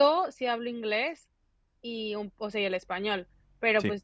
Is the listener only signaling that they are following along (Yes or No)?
Yes